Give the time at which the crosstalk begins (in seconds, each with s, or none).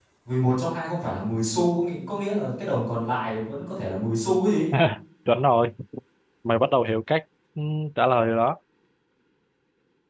none